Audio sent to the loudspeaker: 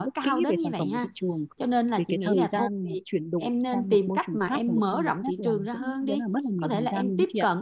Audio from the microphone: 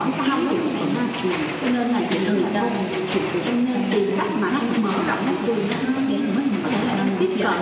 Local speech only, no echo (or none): none